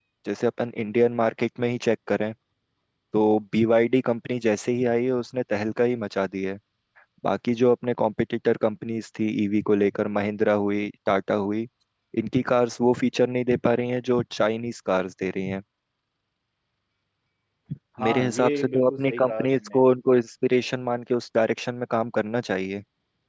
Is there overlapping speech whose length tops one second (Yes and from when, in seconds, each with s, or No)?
Yes, from 18.1 s